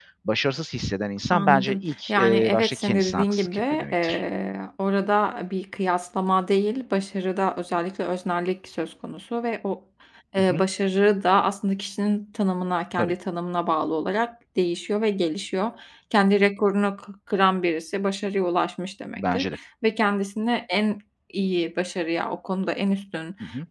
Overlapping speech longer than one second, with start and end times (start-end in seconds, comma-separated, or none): 1.3-4.2